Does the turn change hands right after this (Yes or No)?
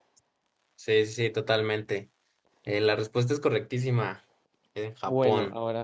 Yes